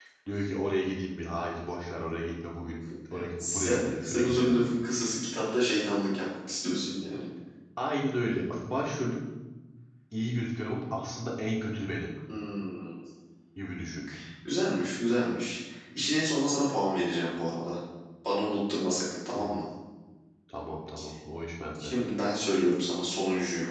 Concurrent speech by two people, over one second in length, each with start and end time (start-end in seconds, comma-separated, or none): 3.4-4.6